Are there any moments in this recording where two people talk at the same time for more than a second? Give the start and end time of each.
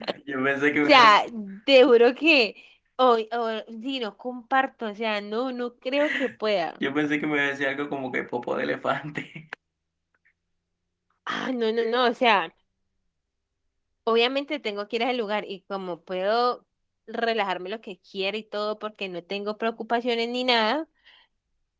none

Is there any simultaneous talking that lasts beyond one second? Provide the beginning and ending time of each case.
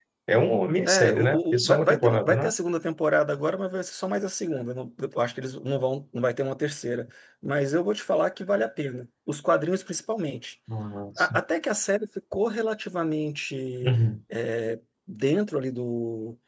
0.8-2.5

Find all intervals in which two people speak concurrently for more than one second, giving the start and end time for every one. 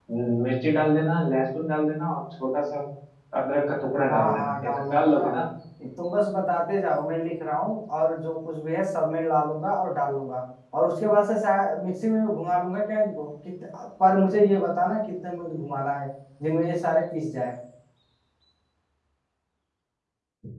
4.1-5.4

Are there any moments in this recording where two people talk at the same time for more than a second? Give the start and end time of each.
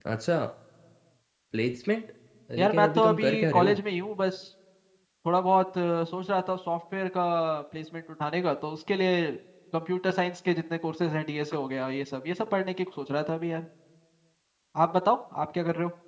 2.6-3.8

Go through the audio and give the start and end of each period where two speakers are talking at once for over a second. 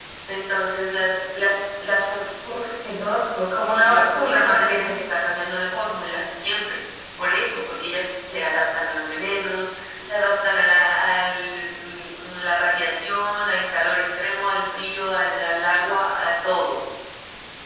3.6-4.9

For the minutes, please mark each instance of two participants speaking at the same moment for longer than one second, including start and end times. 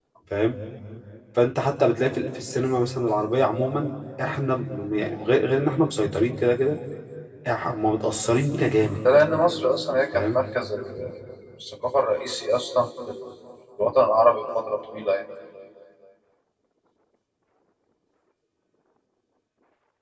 none

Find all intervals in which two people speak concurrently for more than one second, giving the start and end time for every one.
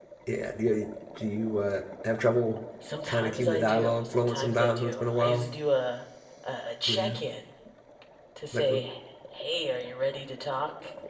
3.1-5.5

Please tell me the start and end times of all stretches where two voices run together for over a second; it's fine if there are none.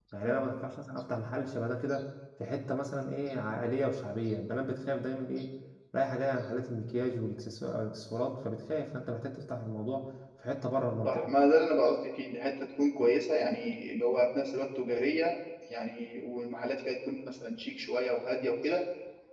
none

